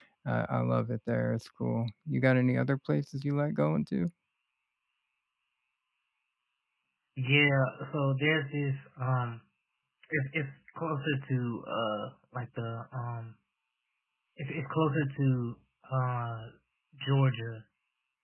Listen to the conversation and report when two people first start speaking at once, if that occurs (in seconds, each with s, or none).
none